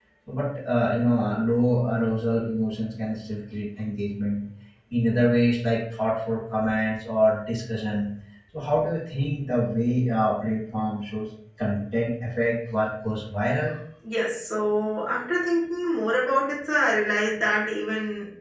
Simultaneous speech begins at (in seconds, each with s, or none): none